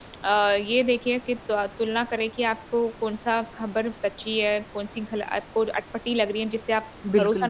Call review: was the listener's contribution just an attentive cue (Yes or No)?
No